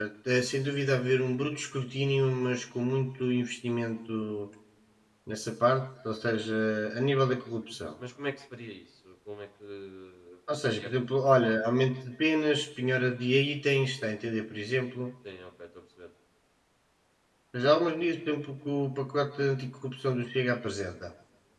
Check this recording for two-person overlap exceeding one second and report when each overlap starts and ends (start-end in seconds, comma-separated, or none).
none